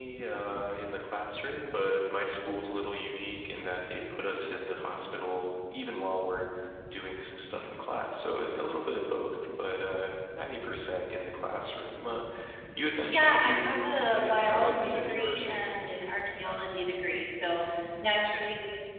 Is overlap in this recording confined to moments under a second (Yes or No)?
No